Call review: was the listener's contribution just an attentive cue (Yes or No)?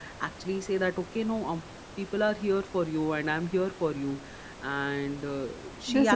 No